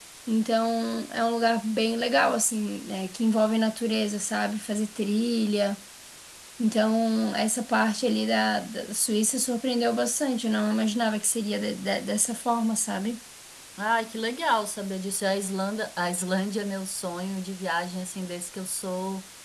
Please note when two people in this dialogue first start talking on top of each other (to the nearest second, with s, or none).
none